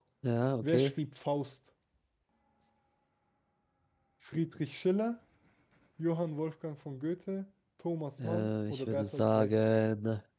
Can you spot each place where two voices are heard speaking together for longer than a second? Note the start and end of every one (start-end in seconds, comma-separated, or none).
8.2-9.6